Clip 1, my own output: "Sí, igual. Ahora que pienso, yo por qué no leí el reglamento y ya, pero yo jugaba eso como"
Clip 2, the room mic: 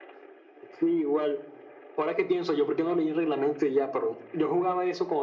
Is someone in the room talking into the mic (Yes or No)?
No